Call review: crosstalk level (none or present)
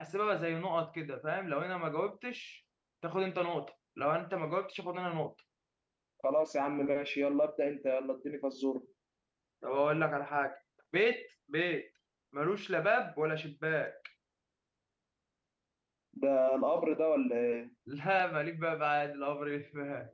none